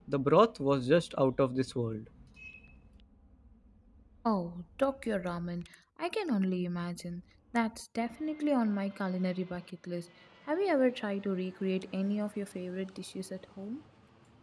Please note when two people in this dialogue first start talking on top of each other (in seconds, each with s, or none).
none